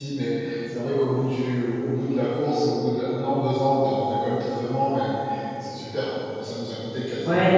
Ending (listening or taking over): taking over